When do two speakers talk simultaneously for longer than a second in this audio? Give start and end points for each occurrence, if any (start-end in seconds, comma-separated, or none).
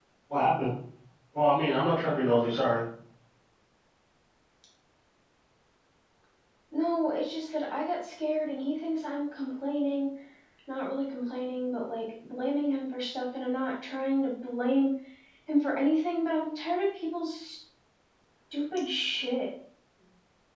none